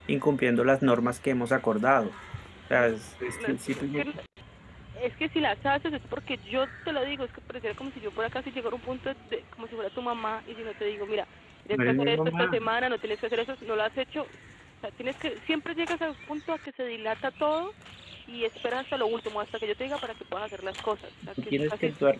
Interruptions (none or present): present